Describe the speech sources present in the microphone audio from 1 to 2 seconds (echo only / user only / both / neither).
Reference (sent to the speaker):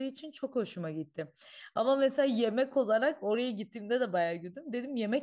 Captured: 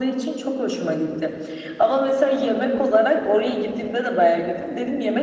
echo only